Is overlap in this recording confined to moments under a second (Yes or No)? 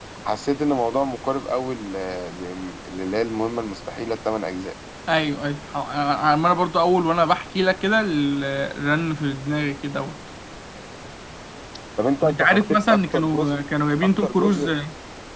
No